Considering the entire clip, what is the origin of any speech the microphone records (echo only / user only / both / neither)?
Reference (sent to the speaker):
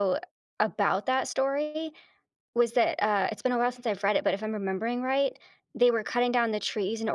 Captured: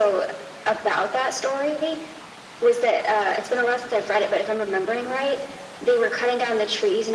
echo only